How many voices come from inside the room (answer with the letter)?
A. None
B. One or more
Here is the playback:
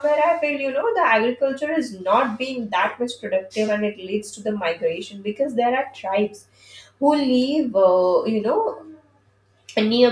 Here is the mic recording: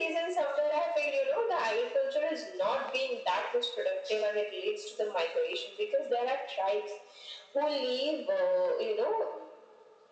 A